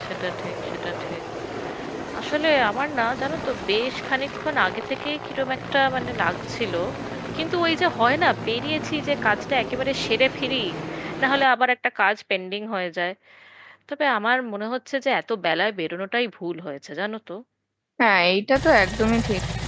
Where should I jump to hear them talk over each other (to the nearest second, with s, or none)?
none